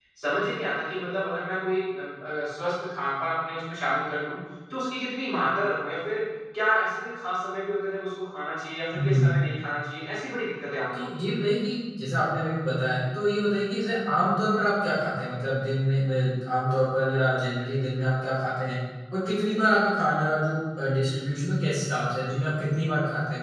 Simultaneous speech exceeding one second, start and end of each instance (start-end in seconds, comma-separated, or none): none